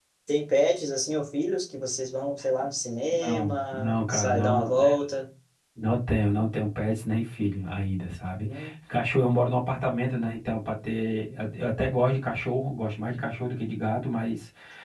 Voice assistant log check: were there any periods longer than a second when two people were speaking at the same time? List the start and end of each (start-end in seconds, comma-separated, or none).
3.1-4.7